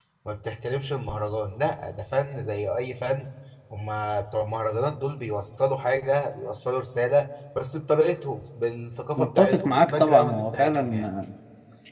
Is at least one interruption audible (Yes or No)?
Yes